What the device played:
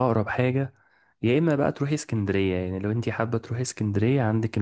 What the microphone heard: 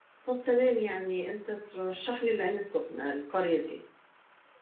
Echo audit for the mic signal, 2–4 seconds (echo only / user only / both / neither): user only